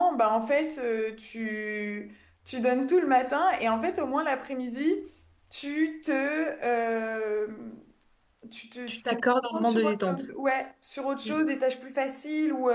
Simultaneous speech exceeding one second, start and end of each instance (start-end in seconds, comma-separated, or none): 8.9-10.2